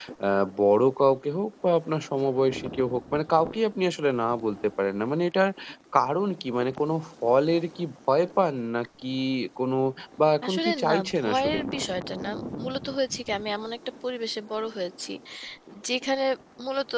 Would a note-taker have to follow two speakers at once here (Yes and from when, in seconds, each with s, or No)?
Yes, from 10.4 s